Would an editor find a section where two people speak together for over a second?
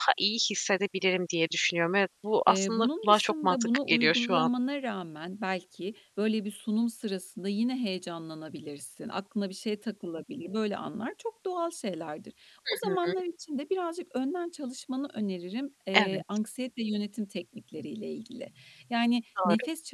Yes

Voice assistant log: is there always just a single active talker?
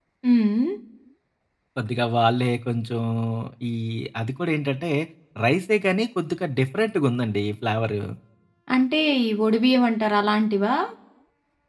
Yes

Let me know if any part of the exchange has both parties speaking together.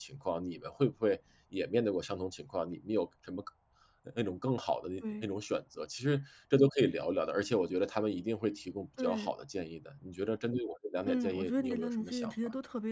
Yes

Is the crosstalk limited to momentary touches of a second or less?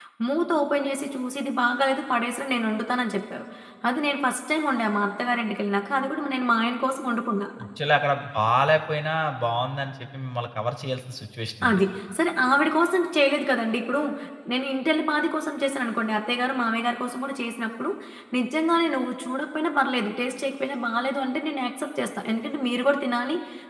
Yes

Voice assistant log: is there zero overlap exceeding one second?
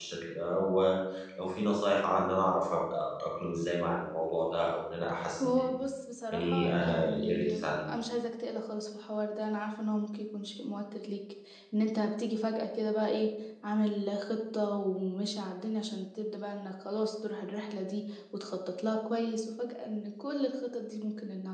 No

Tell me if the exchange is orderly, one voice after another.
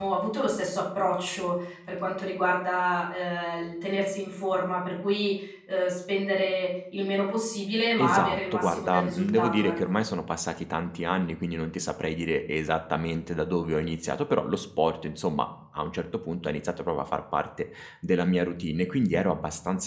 No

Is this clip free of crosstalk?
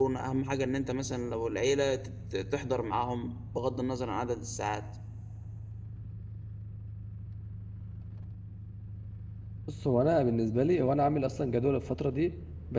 Yes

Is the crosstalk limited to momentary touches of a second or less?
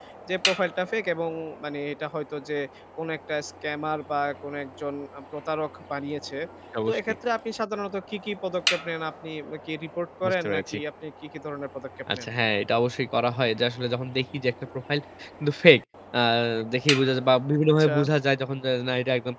Yes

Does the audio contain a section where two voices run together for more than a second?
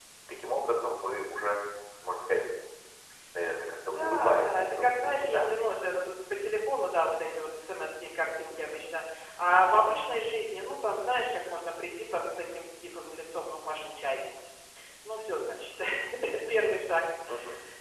Yes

